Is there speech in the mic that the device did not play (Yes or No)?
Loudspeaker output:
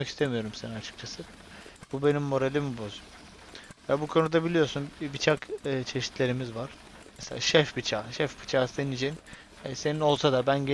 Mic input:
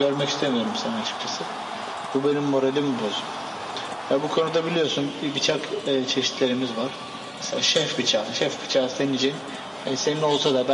No